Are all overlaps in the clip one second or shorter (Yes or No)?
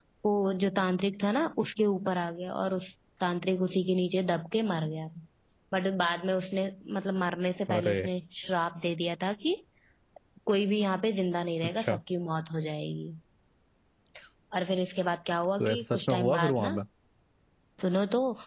No